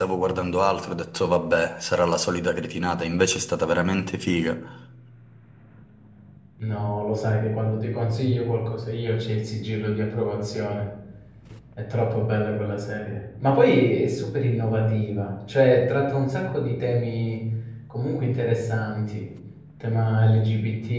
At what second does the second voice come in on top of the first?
none

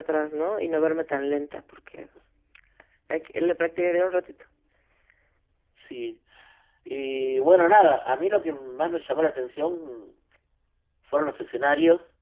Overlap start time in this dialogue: none

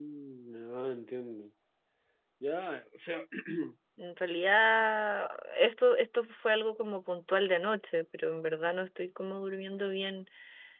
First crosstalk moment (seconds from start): none

